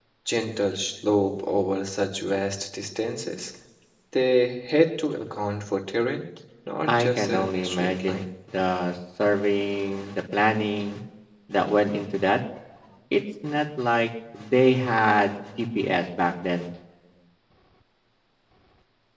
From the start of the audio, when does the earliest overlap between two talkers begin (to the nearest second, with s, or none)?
7 s